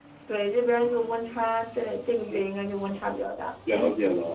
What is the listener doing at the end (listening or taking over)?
taking over